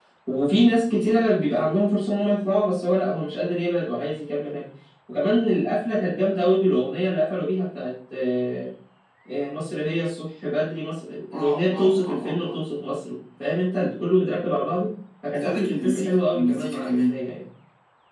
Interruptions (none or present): present